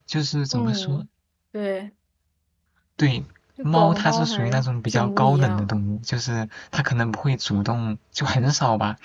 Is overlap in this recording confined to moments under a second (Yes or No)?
No